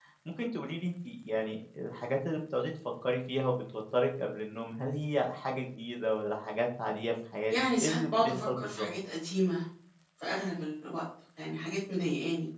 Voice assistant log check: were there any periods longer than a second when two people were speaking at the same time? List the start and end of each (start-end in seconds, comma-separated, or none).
7.5-8.9